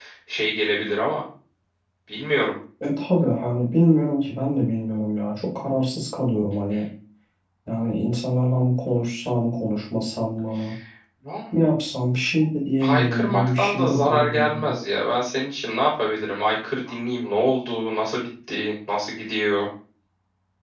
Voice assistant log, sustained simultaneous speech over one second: present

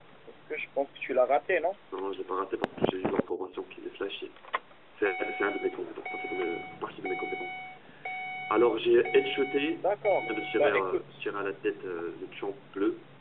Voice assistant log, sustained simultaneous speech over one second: present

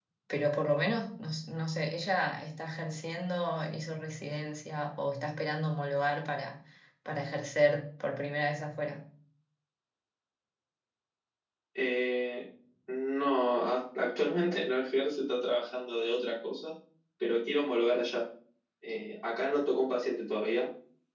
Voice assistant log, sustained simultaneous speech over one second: none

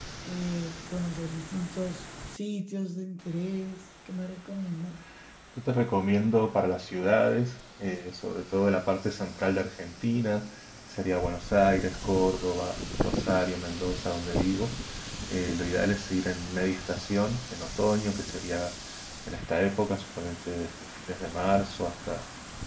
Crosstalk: none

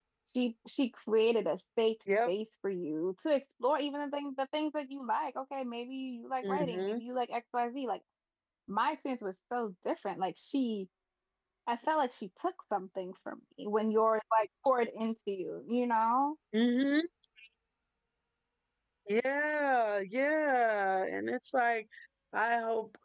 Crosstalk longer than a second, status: none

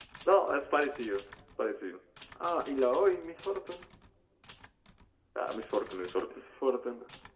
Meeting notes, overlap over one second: none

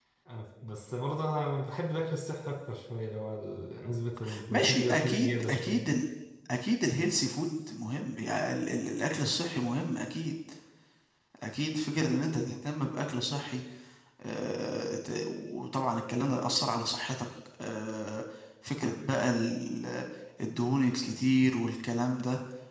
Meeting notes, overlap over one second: present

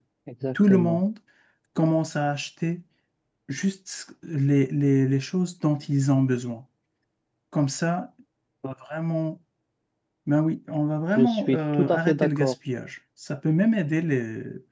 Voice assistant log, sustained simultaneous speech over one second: present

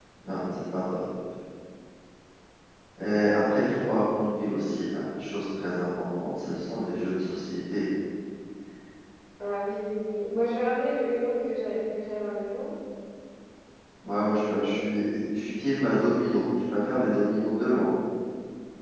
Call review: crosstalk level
none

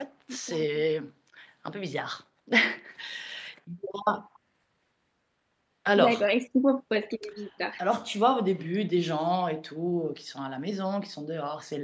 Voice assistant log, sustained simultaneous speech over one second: none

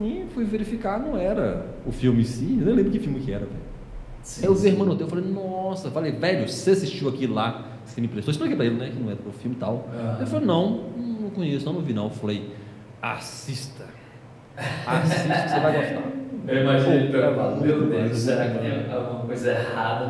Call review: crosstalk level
present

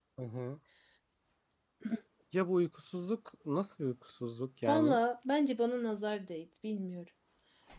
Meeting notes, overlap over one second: none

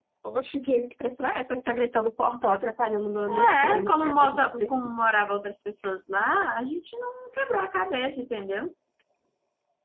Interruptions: present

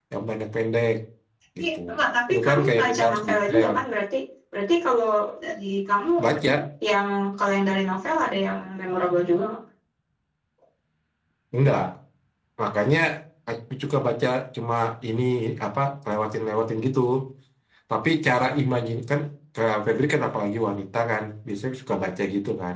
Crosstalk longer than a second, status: present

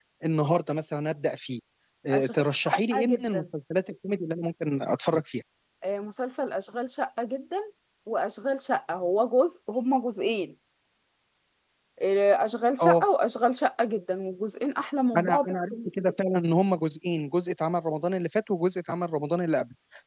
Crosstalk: present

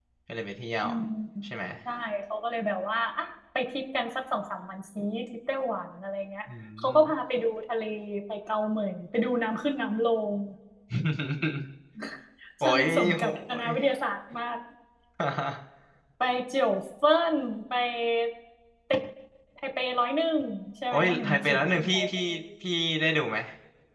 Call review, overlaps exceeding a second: present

